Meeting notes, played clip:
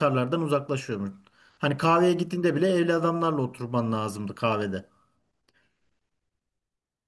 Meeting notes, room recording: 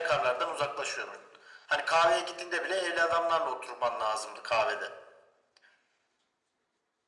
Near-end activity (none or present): none